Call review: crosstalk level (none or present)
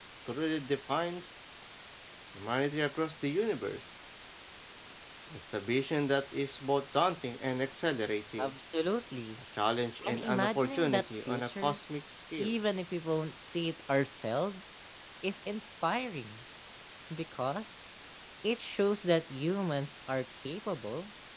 present